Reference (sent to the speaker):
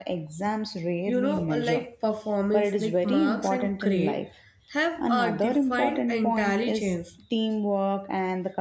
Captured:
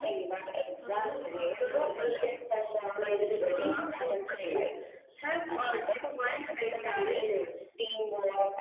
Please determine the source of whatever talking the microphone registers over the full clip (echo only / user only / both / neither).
both